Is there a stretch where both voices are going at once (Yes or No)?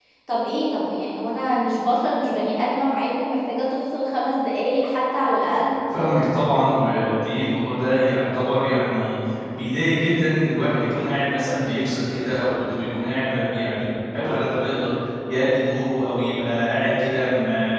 No